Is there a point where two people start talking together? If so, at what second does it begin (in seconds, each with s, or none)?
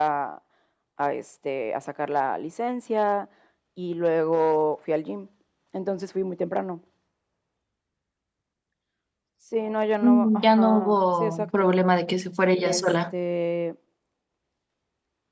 10.0 s